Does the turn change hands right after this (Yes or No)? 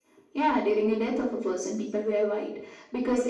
No